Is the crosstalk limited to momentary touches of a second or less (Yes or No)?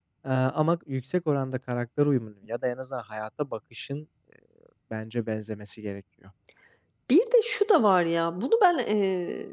Yes